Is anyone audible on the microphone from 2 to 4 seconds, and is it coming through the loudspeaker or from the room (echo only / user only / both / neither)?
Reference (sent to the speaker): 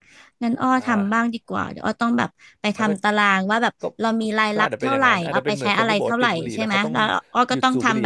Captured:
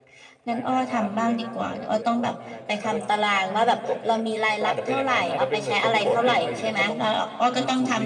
both